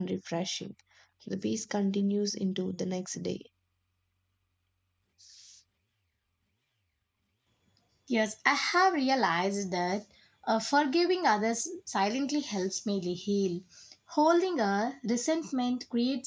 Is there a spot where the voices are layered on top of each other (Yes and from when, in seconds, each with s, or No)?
No